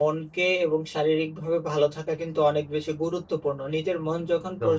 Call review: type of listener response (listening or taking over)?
listening